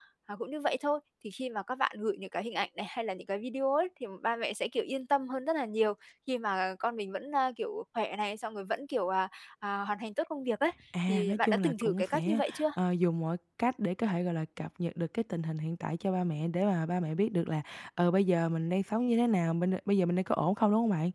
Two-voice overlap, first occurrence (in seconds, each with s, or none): 10.9 s